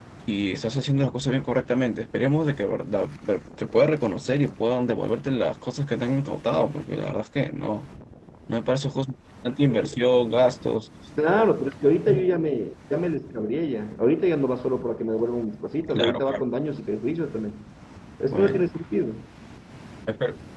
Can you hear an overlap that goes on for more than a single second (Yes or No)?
No